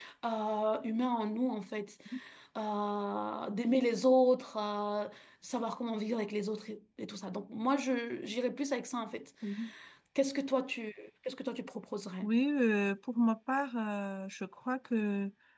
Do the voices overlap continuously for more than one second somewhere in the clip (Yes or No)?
No